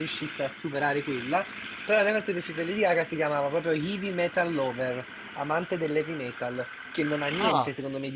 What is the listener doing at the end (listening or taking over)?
listening